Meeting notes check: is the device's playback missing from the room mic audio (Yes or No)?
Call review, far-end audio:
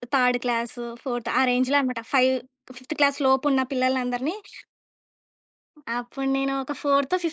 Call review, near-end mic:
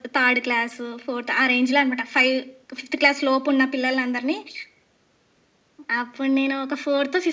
No